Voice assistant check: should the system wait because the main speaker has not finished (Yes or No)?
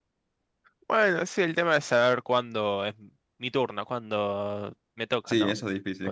No